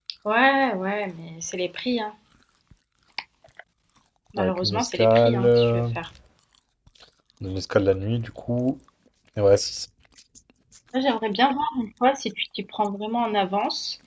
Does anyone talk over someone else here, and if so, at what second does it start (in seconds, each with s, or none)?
4.4 s